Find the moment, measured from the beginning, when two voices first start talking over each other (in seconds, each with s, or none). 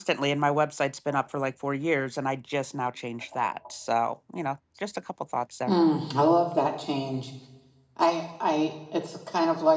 none